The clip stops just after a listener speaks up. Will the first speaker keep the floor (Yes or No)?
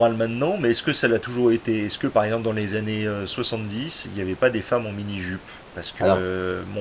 Yes